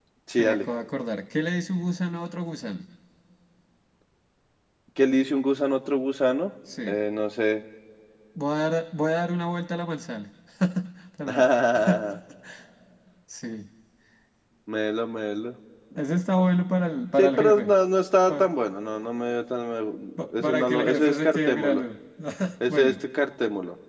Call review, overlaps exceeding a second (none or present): present